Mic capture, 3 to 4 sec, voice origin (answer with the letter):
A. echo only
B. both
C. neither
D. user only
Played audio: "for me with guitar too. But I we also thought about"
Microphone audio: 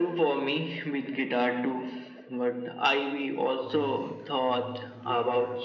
B